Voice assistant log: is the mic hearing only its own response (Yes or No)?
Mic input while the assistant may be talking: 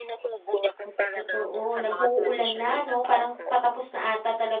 No